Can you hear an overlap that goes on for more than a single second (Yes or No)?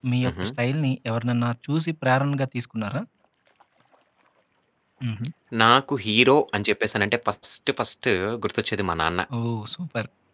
No